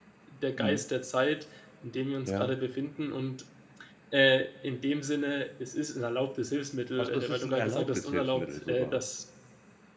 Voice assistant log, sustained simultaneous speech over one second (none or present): present